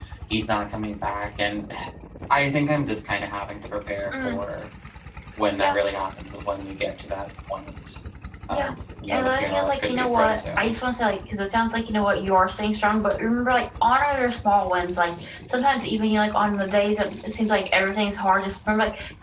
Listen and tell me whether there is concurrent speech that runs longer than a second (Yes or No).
Yes